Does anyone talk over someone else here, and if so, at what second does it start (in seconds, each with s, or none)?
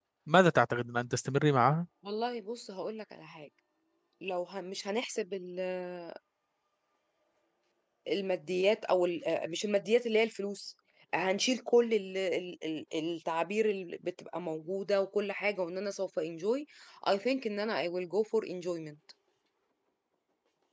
none